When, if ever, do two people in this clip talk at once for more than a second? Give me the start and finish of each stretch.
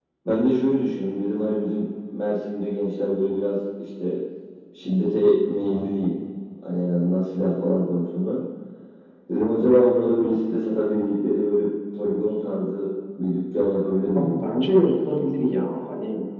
none

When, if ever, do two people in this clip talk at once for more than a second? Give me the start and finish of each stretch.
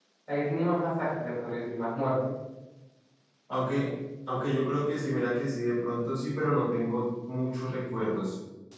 none

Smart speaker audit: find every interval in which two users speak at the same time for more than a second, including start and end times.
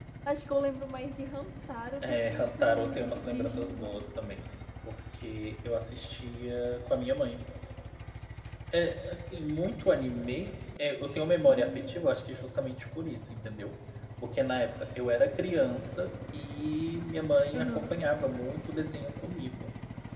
2.0-4.0

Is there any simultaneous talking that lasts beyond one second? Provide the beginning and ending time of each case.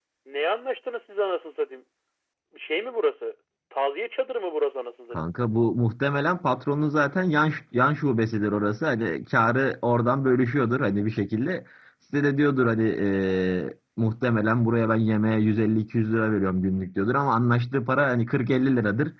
none

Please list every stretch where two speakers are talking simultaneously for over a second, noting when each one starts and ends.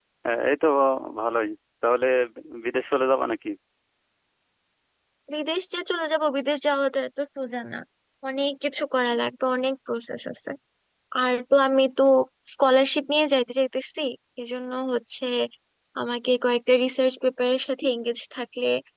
none

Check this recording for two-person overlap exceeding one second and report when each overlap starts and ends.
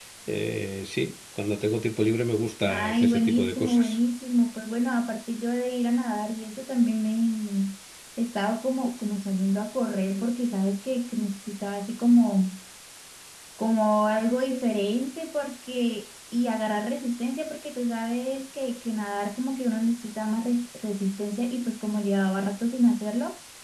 2.7-4.0

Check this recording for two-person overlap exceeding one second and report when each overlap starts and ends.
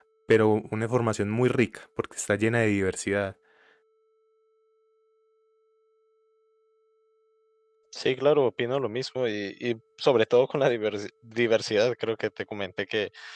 none

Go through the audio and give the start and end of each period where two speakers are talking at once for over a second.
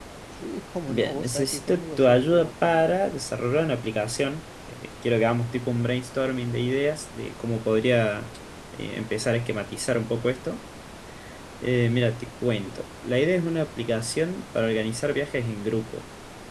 0.9-2.9

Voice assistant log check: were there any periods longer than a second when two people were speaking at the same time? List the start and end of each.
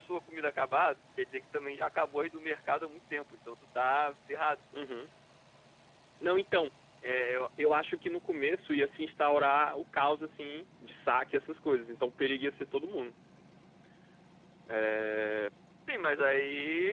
none

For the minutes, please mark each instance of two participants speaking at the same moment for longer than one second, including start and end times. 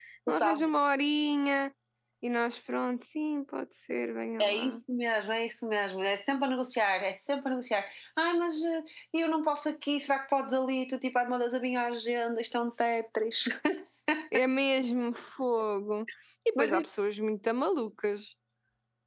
none

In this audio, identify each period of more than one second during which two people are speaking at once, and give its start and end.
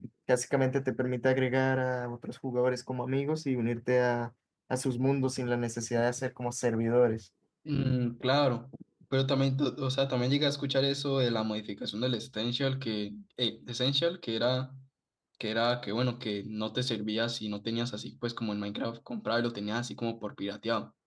none

